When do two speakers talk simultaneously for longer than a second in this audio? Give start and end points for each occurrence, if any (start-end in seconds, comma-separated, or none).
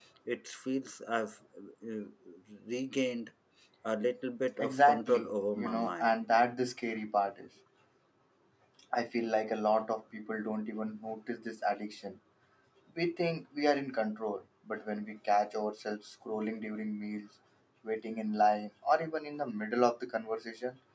4.6-6.2